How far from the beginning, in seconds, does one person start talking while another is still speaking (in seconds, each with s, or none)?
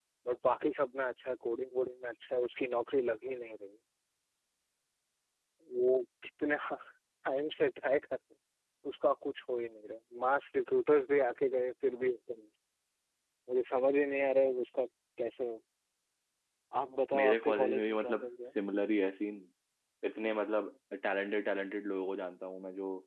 17.1 s